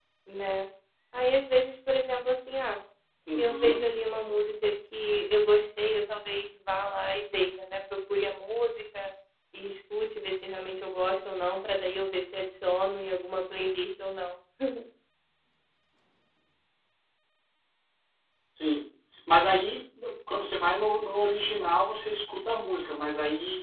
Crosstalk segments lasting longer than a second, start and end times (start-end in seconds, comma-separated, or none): none